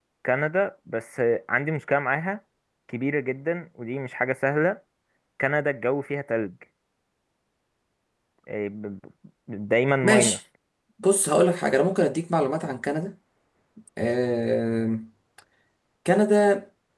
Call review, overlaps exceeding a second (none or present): none